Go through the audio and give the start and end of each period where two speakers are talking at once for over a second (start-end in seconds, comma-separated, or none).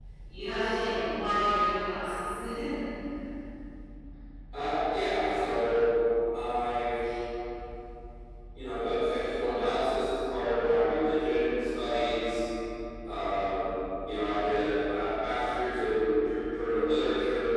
none